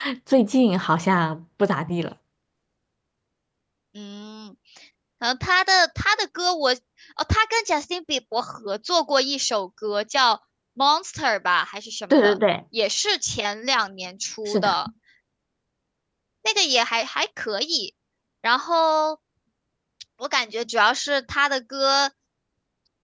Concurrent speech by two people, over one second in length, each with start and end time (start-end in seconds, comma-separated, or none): none